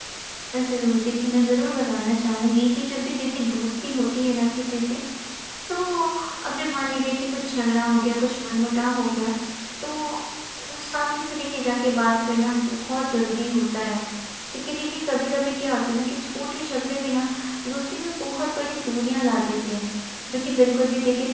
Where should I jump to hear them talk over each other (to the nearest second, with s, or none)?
none